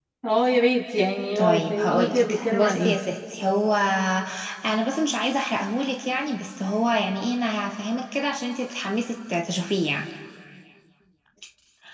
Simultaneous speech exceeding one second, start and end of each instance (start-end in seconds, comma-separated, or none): 1.4-2.9